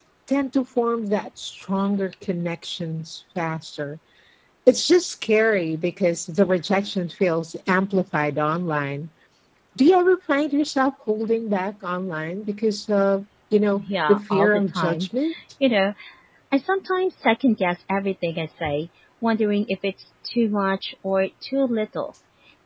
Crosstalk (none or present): present